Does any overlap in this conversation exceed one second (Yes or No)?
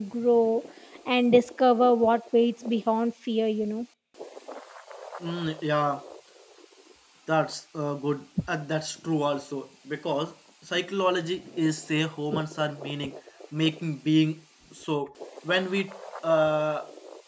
No